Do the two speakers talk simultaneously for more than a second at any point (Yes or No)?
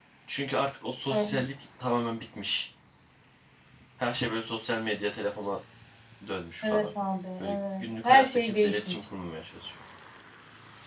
Yes